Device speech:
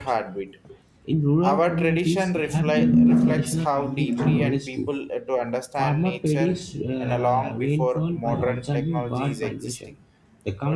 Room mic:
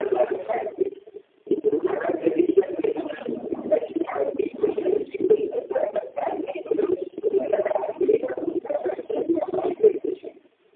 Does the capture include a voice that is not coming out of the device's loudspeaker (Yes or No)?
No